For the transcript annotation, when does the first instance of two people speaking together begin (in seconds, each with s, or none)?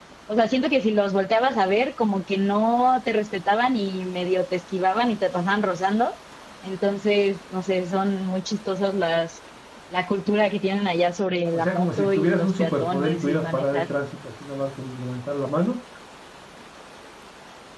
11.5 s